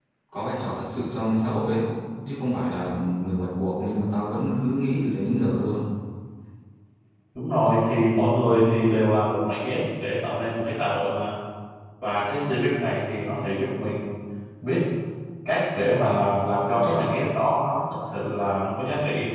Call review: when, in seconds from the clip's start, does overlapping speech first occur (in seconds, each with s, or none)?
none